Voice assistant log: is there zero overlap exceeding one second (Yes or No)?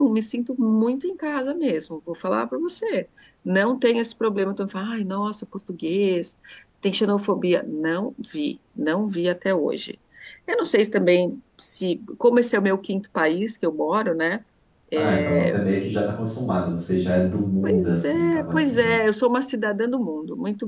No